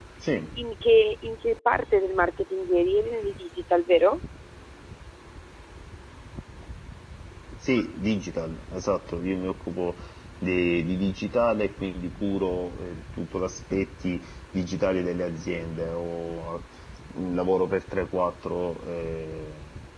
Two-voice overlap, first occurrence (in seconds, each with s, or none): none